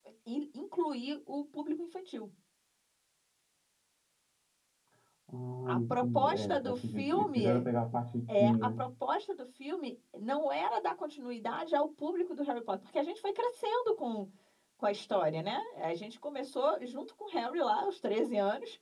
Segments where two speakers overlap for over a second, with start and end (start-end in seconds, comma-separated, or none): 5.7-7.7